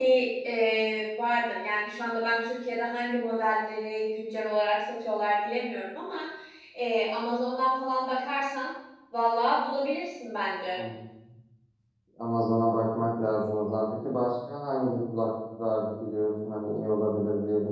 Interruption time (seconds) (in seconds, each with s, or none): none